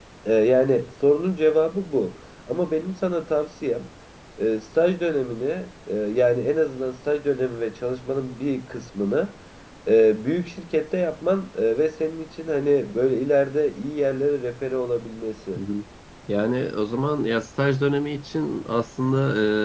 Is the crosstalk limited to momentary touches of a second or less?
Yes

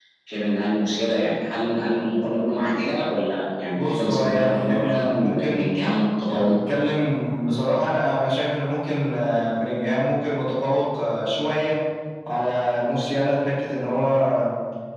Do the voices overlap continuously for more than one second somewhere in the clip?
Yes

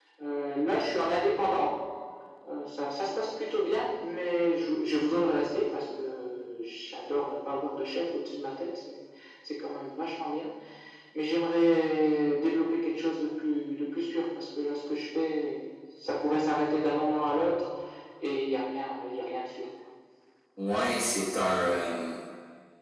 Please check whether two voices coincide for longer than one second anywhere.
No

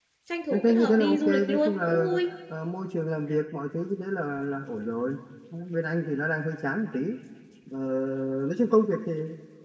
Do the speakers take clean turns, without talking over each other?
No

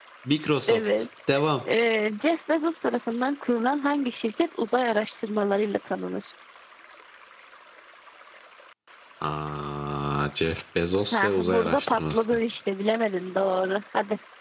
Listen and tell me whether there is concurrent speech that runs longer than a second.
Yes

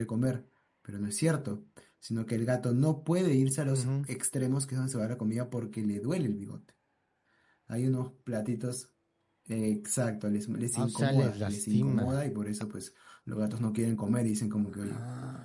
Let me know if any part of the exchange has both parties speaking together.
Yes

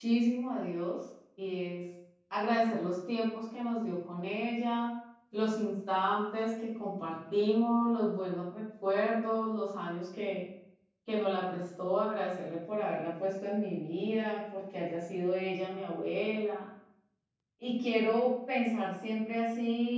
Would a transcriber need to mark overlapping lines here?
No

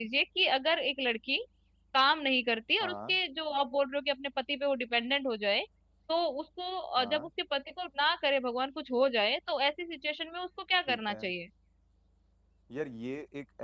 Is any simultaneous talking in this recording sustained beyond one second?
No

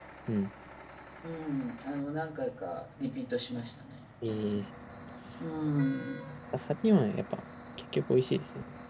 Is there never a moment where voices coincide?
Yes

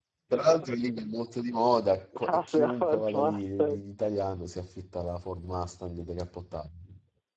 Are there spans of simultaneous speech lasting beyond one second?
Yes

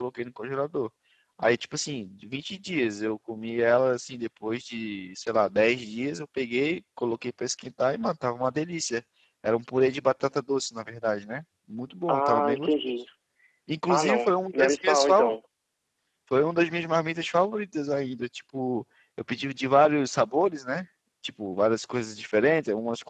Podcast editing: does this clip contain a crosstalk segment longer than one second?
Yes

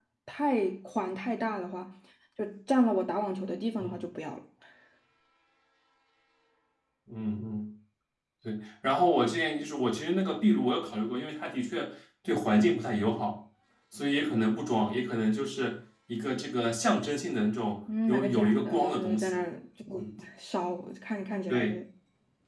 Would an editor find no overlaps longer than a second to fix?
No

